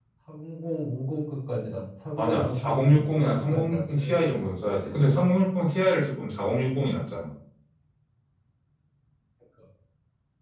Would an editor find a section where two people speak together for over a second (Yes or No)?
Yes